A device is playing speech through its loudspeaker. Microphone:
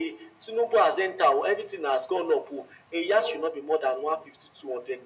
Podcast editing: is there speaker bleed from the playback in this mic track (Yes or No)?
Yes